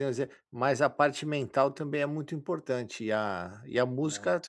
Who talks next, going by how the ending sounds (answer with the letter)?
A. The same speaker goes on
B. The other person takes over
A